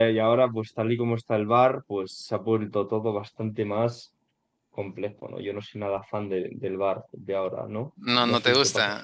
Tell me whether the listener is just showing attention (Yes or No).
No